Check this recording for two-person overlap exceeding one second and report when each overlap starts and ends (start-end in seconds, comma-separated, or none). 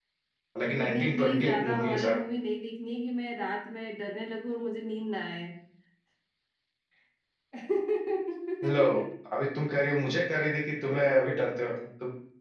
0.6-2.2